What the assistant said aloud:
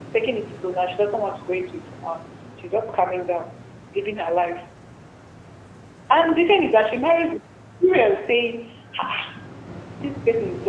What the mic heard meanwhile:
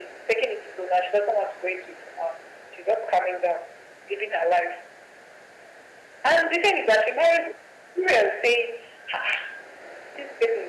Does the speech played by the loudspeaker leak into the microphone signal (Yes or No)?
Yes